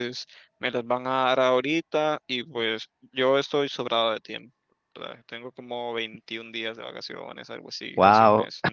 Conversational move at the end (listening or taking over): listening